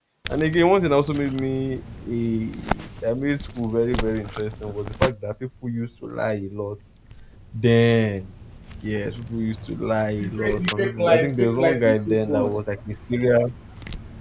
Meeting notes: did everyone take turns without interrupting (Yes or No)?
No